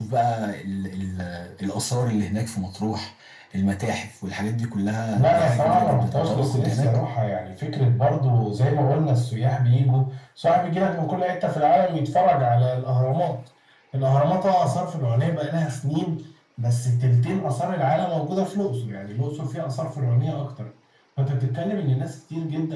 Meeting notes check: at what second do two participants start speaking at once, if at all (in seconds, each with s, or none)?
5.2 s